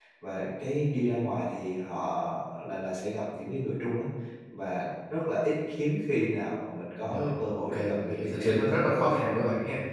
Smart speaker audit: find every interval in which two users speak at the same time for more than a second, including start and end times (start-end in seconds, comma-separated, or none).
7.0-8.8